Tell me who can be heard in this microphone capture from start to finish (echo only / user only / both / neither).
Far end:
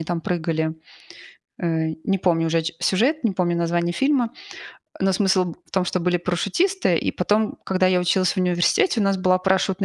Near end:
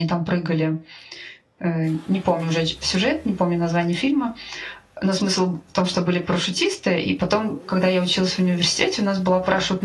echo only